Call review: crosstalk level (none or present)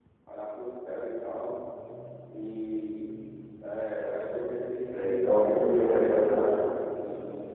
present